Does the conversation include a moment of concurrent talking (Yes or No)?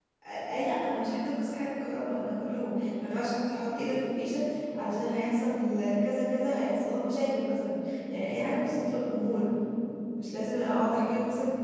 No